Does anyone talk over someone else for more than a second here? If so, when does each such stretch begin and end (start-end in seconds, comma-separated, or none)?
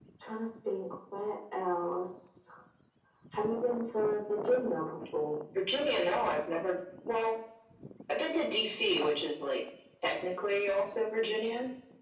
none